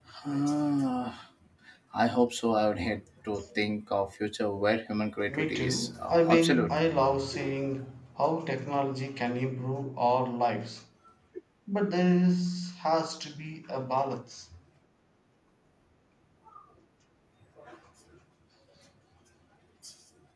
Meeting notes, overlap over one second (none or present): present